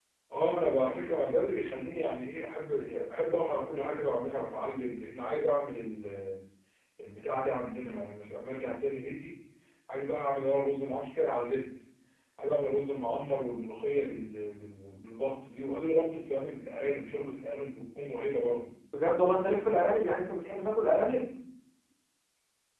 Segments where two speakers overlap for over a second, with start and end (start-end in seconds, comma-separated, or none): none